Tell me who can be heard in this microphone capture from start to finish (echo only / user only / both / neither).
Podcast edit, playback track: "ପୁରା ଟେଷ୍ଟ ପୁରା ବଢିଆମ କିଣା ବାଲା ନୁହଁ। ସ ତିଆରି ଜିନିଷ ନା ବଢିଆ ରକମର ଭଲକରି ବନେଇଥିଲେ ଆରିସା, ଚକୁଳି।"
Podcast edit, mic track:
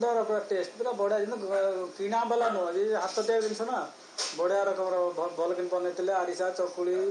echo only